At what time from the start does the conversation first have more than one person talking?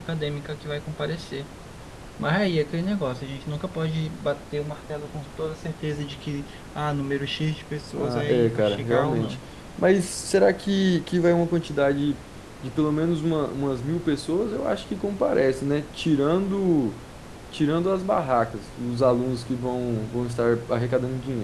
8.0 s

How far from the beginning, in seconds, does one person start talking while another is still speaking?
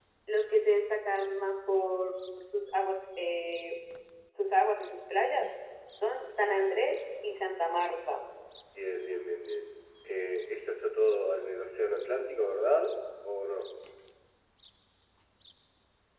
none

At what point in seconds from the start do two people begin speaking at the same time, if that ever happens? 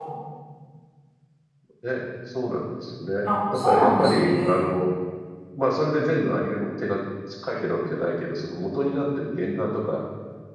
3.3 s

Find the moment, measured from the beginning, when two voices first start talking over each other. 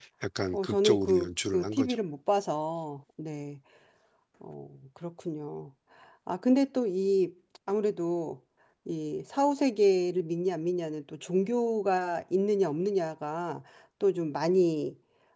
0.5 s

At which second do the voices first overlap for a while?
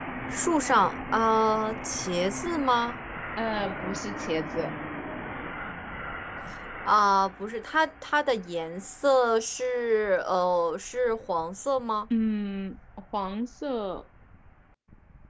none

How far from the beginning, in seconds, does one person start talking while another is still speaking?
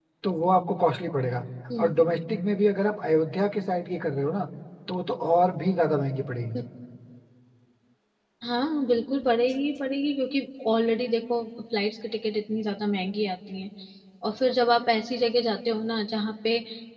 none

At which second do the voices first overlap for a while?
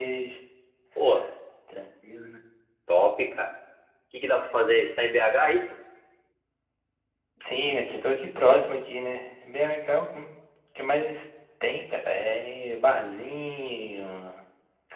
none

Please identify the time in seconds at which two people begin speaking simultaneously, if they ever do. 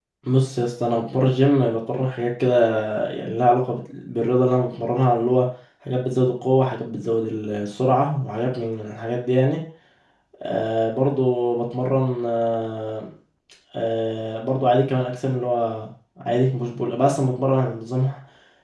none

